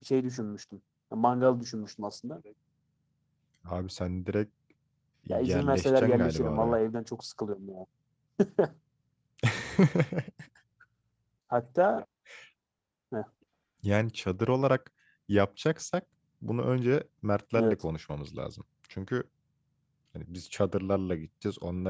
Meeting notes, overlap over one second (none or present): present